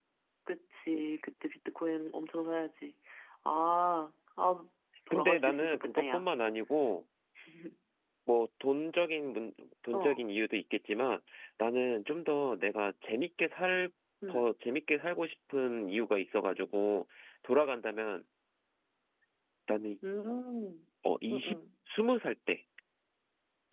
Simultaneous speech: Yes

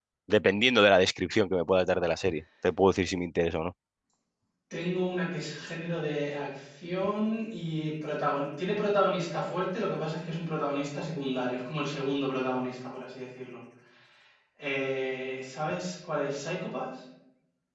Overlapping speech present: No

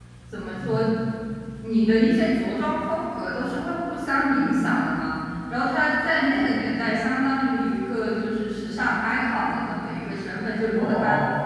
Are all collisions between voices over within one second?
Yes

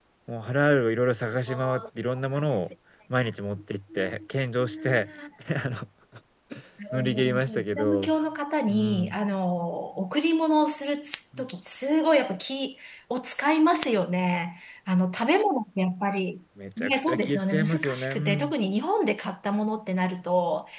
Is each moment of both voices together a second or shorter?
No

